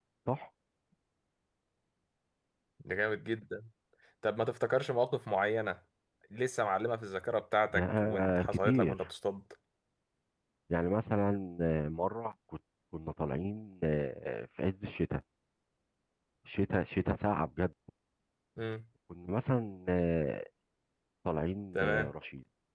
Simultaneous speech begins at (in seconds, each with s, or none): 7.7 s